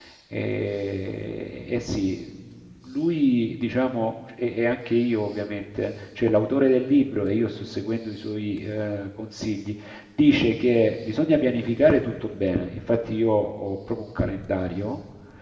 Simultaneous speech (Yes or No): No